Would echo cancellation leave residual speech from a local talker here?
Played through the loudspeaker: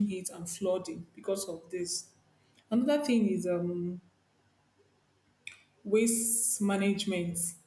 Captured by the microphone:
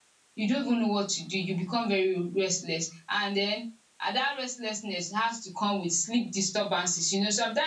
Yes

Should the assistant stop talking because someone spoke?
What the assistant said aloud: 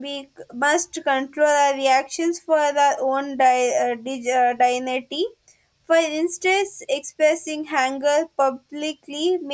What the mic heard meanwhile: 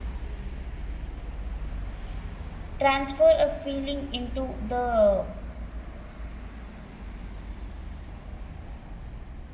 Yes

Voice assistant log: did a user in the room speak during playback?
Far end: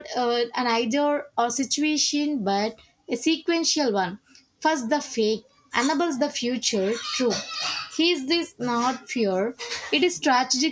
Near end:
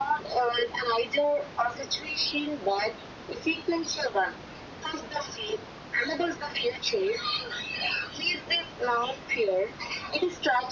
No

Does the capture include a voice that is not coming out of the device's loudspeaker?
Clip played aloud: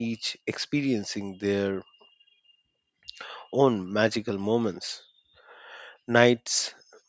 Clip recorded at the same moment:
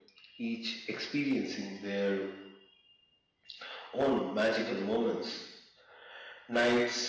No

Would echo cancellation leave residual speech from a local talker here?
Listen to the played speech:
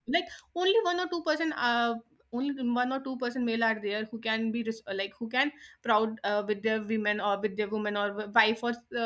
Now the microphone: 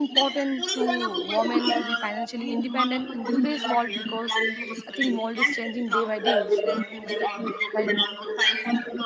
Yes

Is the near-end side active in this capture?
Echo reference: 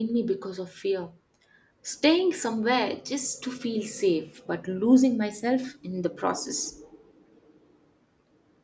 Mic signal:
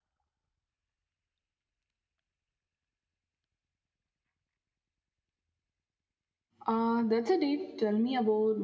Yes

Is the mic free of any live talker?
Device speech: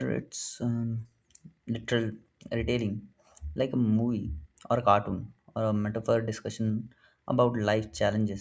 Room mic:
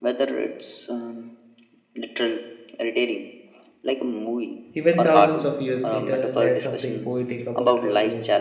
No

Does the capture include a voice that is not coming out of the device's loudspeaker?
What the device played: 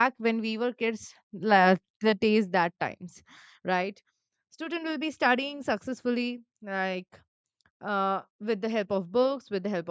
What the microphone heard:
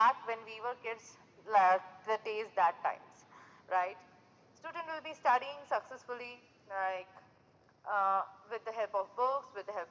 No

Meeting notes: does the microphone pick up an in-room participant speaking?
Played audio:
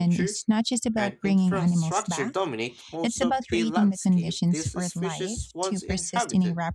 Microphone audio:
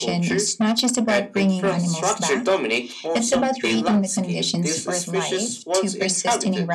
No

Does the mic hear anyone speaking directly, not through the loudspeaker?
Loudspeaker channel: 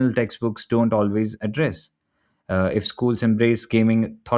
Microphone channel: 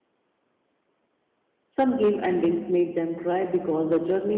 Yes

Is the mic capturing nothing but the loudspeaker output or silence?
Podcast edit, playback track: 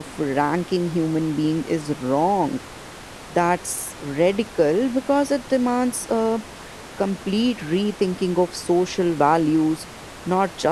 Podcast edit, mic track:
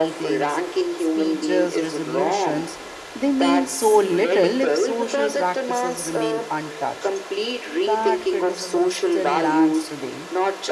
No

